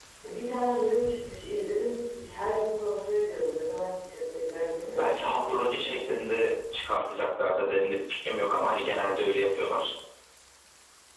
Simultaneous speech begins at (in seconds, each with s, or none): 4.8 s